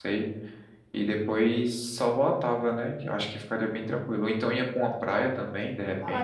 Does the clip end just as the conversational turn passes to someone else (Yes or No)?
Yes